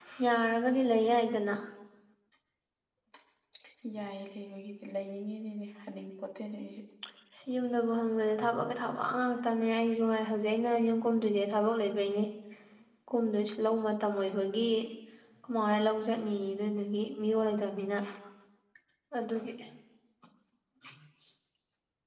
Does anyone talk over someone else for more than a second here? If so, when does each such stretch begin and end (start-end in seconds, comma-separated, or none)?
none